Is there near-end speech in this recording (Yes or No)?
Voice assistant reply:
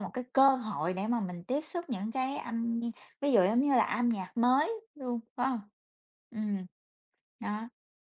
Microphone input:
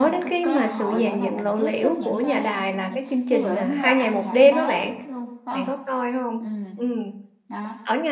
Yes